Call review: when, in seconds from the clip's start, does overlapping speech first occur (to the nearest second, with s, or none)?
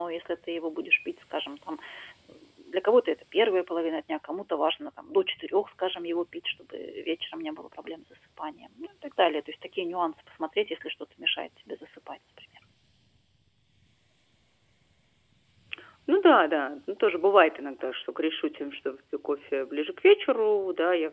none